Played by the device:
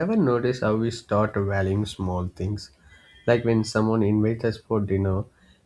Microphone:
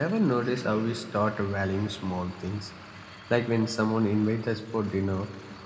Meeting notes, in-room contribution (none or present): none